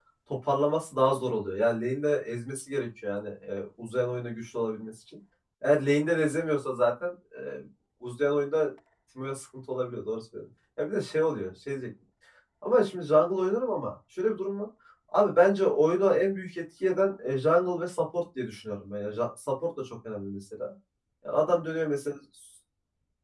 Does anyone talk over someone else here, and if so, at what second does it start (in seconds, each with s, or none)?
none